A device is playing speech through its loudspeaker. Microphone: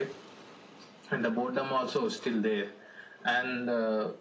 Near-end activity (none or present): none